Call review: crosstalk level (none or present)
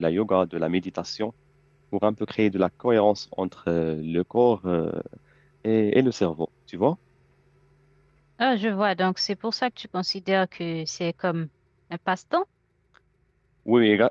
none